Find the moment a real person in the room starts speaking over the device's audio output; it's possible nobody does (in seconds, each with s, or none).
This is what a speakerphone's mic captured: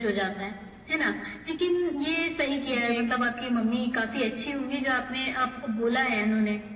2.6 s